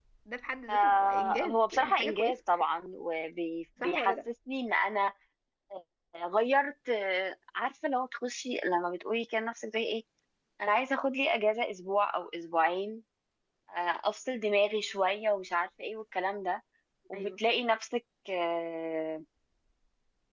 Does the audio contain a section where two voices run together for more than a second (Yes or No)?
Yes